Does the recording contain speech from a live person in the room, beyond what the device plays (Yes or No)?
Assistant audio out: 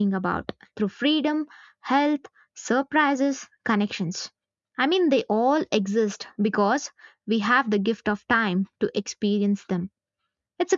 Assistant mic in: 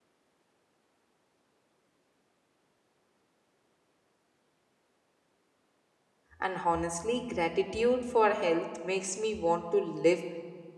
Yes